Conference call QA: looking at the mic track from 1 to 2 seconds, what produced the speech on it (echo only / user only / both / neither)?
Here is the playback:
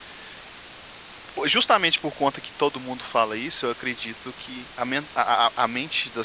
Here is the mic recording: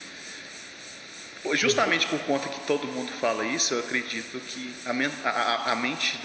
both